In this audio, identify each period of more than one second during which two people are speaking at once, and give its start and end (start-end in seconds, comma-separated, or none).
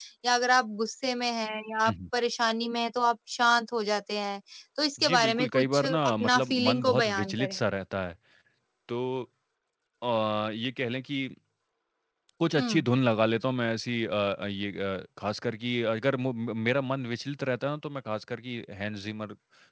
5.1-7.6